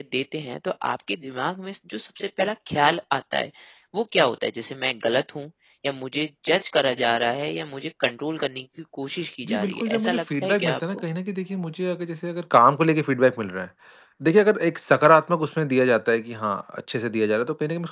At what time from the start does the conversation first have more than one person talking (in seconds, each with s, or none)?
9.4 s